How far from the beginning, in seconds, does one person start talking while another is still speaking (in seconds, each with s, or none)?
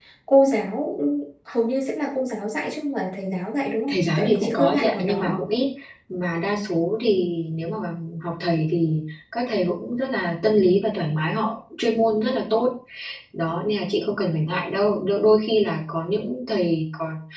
3.9 s